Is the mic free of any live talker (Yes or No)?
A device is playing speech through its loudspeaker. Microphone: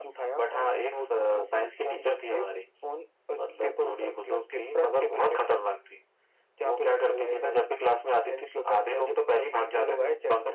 Yes